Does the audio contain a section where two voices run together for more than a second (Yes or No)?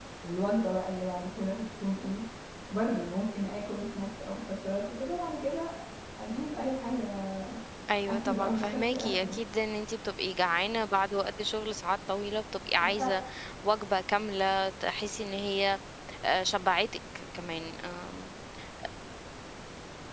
Yes